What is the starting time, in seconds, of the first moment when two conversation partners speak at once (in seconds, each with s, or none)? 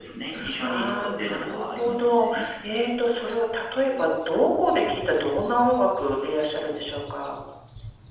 0.6 s